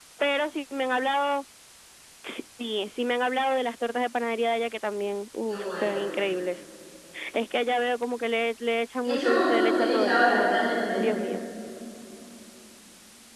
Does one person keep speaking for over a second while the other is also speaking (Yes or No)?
Yes